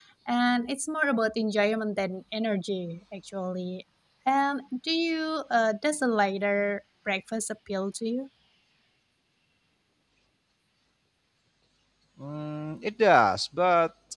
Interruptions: none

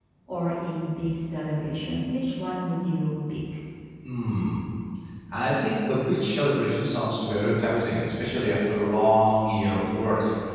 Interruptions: none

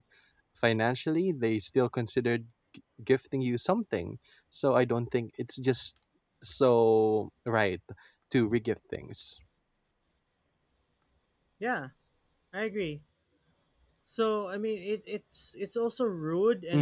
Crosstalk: none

